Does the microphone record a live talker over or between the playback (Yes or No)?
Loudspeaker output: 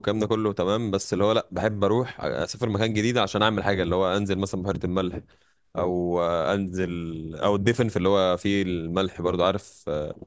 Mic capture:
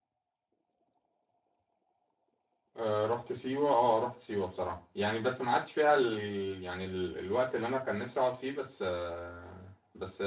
Yes